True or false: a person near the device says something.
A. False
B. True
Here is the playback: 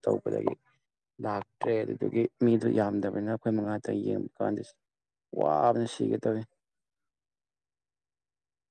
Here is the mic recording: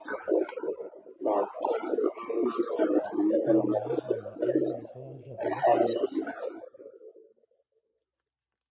B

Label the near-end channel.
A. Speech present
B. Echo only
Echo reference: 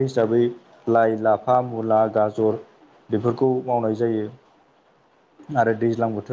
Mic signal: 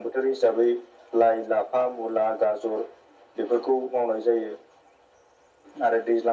B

